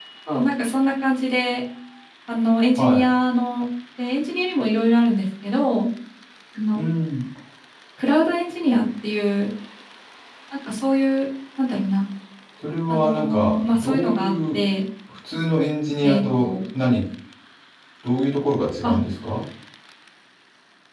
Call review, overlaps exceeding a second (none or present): present